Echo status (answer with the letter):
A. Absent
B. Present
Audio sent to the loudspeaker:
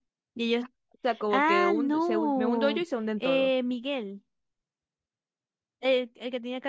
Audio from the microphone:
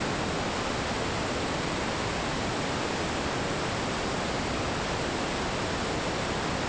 A